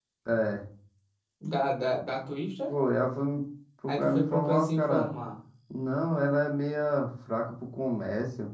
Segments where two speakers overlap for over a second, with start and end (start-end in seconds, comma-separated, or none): 3.9-5.1